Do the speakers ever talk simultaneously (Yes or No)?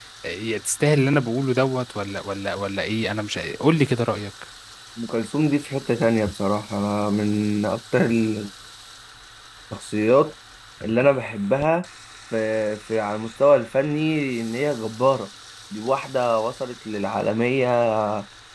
No